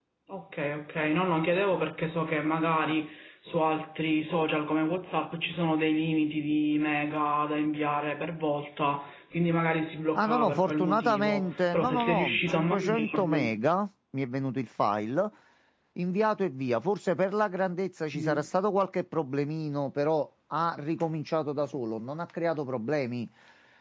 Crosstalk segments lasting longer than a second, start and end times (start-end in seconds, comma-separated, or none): 10.2-13.5